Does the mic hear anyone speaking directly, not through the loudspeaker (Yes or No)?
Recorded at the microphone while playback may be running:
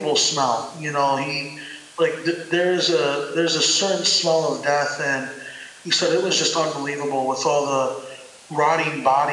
No